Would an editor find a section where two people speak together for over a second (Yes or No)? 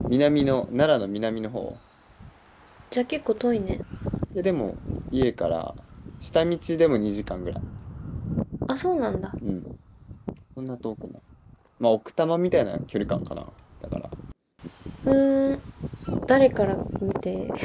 No